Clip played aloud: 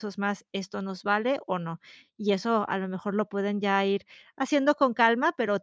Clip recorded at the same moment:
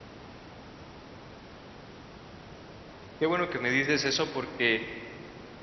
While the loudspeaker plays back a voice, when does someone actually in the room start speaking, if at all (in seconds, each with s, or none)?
3.2 s